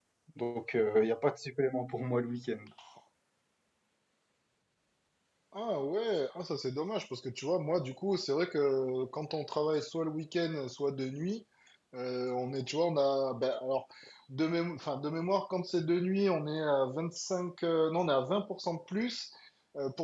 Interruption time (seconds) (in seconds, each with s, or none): none